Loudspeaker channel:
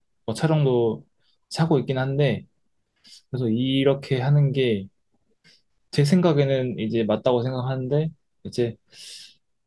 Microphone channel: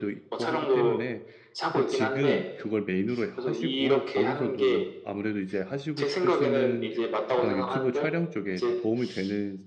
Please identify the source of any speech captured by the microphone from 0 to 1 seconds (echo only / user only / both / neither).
both